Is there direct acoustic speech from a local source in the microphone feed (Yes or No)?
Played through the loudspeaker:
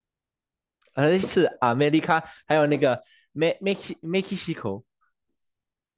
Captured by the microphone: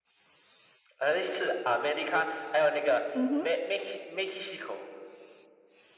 Yes